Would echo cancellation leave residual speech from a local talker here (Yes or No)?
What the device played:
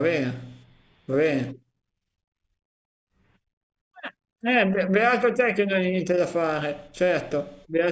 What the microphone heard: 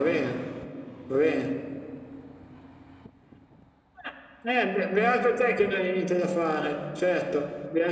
No